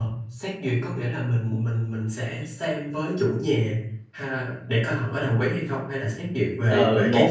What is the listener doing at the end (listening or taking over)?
taking over